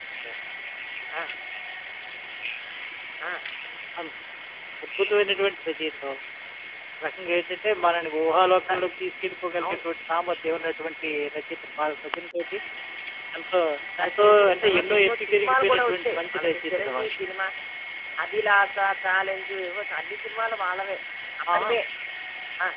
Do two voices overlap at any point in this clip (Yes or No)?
Yes